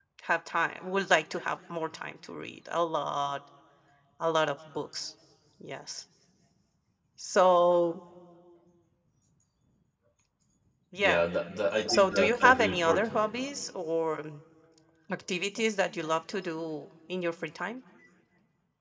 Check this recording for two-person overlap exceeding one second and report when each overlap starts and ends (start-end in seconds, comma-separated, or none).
11.9-13.2